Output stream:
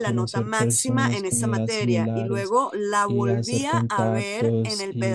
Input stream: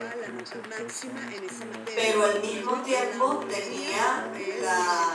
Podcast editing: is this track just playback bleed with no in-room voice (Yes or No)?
No